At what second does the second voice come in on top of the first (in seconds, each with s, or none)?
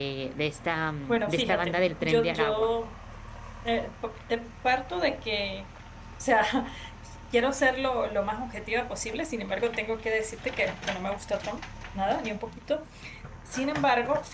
1.1 s